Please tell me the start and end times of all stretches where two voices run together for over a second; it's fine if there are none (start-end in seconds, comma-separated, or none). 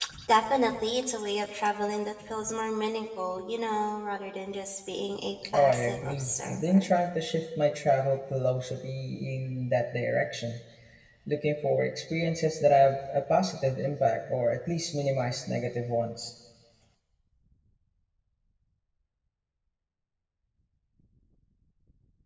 5.5-6.9